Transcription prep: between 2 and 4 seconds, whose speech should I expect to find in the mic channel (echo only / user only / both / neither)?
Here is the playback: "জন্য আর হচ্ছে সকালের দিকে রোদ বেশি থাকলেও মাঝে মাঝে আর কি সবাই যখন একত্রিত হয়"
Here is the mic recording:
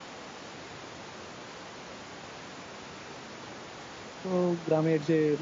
neither